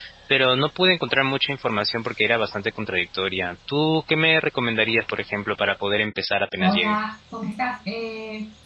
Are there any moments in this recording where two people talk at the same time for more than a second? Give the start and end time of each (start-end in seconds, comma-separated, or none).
none